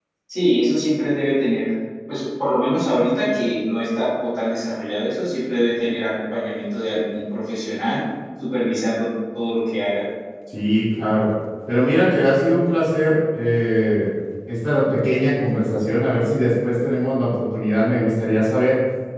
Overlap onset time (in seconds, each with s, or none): none